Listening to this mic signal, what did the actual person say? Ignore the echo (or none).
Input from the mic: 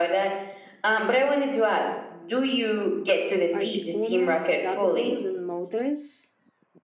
Articuno, Zapdos, and Moltres.